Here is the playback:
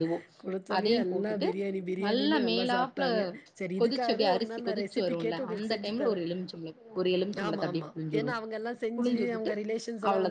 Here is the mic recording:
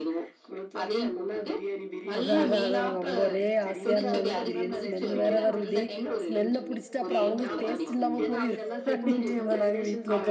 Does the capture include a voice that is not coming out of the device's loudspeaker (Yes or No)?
Yes